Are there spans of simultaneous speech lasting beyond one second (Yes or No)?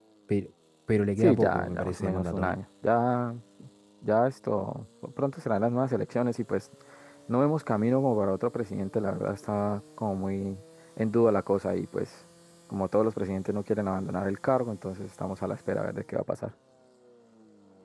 Yes